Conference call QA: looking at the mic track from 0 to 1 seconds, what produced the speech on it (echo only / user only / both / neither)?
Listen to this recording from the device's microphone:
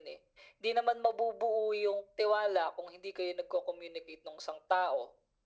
echo only